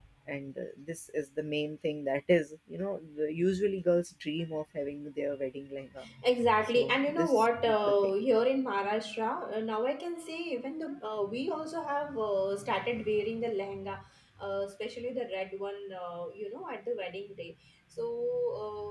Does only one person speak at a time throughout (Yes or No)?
No